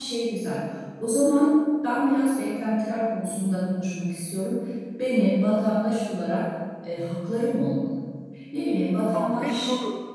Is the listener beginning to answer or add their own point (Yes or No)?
Yes